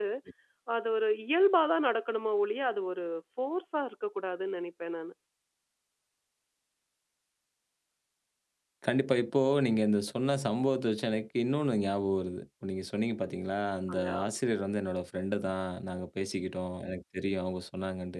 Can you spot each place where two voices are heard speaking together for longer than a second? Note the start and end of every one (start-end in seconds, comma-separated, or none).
none